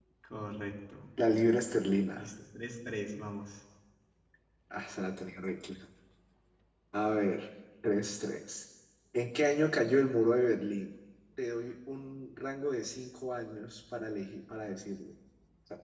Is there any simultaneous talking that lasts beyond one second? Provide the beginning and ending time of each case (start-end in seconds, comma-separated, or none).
none